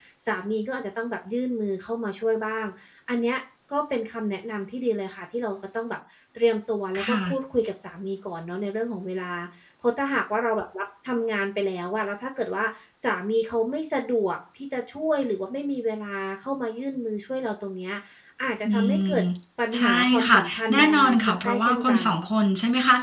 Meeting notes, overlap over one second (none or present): present